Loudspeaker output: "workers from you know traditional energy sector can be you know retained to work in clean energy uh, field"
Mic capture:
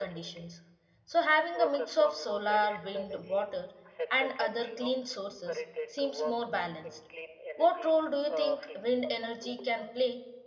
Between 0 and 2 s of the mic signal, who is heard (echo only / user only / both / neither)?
both